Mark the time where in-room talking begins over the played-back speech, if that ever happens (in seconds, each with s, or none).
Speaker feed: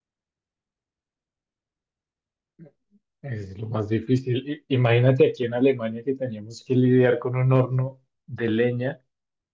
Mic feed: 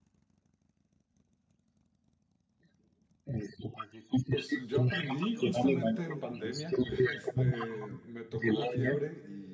4.3 s